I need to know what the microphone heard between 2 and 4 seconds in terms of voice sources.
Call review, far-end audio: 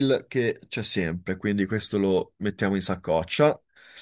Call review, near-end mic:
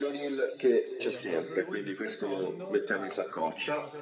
both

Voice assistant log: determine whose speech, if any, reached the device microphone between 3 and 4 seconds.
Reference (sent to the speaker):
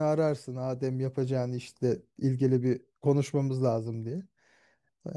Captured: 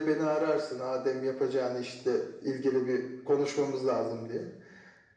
echo only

